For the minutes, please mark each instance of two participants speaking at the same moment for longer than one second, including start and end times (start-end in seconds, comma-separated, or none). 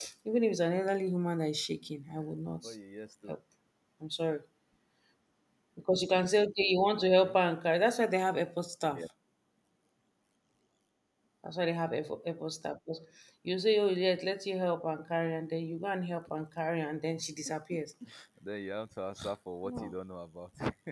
none